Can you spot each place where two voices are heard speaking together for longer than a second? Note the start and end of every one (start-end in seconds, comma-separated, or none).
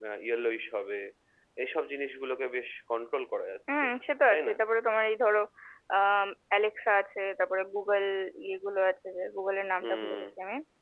none